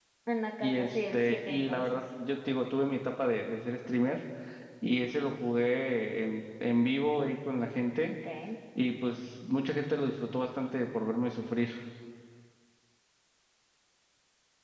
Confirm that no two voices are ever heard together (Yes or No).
No